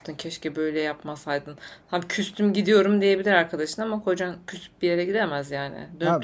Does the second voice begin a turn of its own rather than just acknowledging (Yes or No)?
Yes